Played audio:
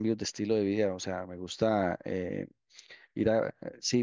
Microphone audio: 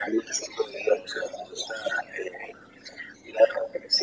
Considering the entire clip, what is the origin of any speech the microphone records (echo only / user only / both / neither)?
echo only